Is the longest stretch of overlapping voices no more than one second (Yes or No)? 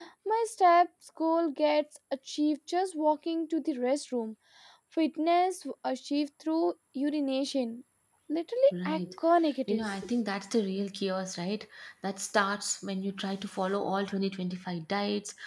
Yes